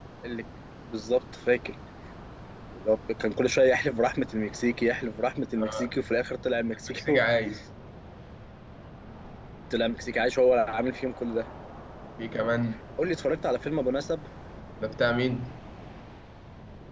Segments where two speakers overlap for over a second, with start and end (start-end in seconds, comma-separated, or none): none